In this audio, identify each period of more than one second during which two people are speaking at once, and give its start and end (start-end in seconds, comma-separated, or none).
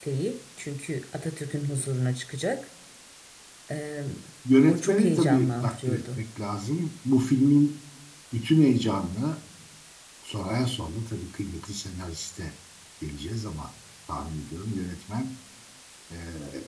4.7-6.2